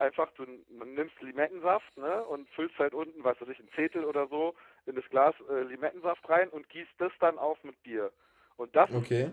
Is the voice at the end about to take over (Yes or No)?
No